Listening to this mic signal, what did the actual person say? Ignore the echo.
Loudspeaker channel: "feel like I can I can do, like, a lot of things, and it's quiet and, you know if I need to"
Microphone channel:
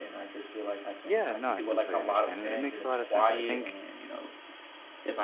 Yeah, no, I completely understand. It it makes a lot of sense. I think

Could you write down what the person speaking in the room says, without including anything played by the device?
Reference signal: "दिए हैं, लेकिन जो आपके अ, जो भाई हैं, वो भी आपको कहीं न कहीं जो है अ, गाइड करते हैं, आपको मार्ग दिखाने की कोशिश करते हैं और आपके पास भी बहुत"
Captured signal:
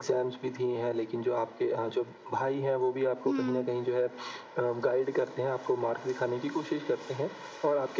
हुँ।

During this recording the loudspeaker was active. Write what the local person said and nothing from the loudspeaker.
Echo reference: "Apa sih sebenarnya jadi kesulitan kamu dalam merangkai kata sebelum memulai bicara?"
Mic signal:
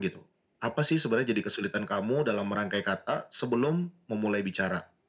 none

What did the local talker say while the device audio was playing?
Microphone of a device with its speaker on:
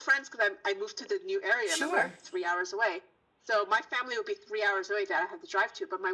sure,

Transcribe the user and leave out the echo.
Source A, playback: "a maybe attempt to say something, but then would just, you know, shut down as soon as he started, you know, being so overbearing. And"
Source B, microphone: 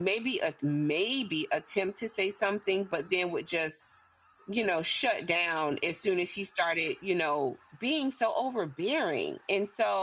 none

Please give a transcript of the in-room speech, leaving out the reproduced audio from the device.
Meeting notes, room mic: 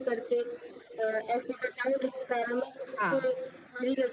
हाँ,

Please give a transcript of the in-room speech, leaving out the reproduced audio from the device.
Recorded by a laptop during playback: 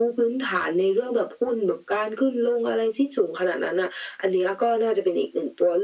none

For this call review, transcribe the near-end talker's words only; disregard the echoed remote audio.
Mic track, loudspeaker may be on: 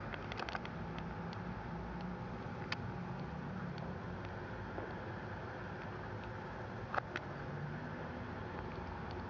none

